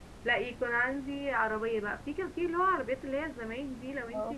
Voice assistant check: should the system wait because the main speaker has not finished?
Yes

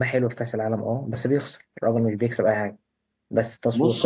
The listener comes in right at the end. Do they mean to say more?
No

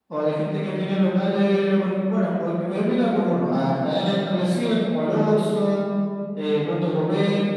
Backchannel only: Yes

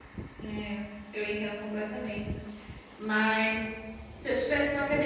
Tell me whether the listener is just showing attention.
Yes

